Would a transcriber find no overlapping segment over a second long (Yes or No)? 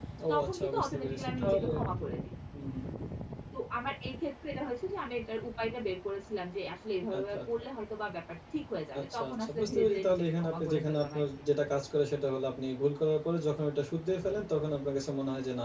No